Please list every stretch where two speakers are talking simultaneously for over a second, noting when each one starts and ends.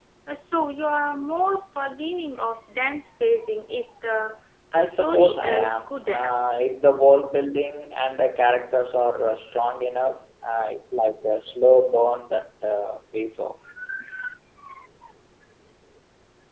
4.8-6.3

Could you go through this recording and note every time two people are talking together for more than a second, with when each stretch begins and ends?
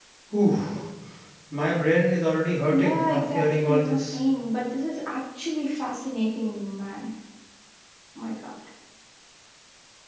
2.7-4.2

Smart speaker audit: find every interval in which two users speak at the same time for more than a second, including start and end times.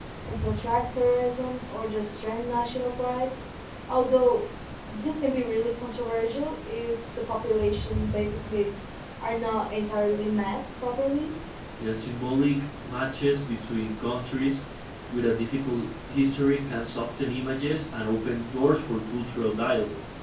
none

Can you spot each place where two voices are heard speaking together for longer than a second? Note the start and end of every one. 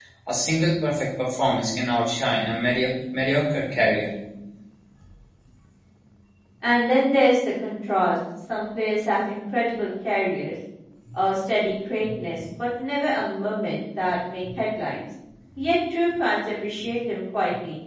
none

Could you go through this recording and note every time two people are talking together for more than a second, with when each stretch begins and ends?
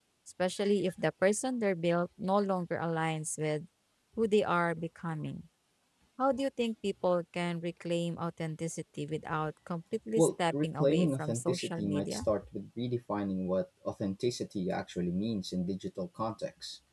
10.2-12.2

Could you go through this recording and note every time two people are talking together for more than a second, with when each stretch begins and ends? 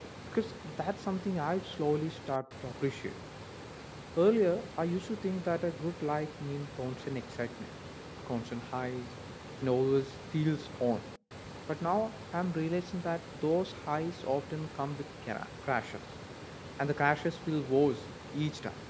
none

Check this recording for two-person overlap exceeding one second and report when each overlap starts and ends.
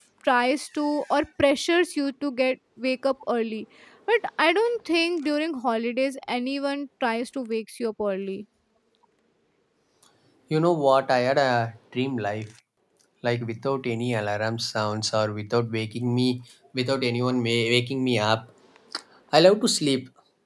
none

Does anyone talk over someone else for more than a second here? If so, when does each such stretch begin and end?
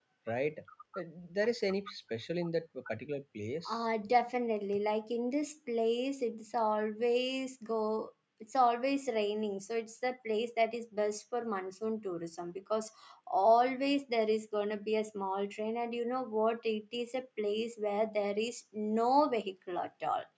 none

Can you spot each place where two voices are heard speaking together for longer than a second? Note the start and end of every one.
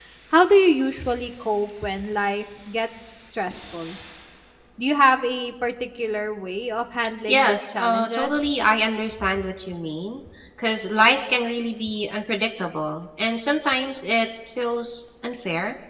7.3-8.5

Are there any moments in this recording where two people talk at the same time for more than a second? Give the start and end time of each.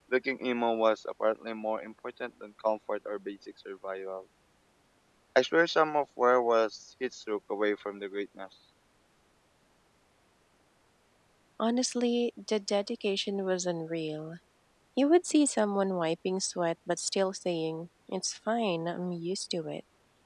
none

